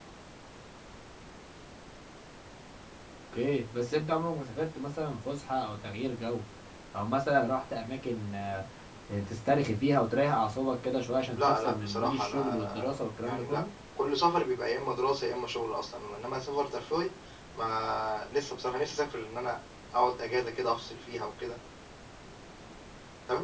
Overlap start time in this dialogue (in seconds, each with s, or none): 11.4 s